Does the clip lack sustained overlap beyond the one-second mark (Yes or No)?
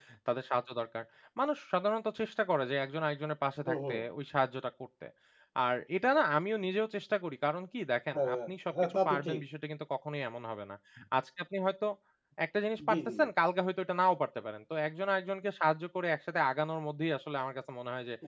No